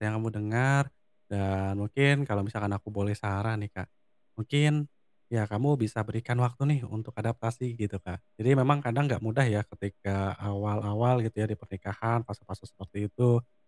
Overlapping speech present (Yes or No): No